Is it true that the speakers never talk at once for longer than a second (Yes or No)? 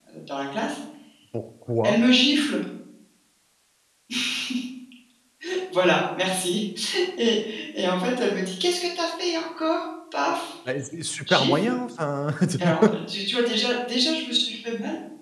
Yes